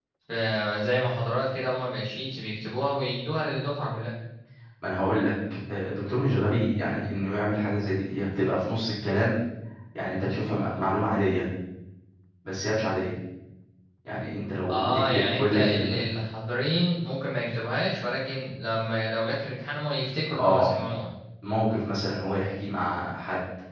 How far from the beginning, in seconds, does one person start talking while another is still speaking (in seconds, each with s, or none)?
14.7 s